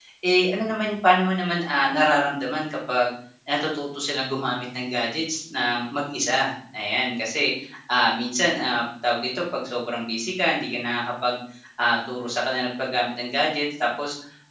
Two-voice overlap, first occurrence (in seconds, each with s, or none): none